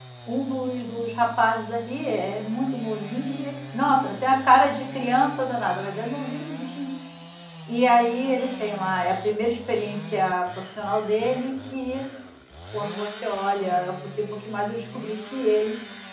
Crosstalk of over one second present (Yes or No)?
No